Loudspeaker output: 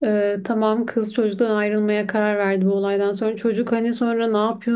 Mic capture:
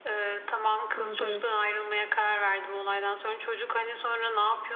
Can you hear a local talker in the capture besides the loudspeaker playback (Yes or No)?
Yes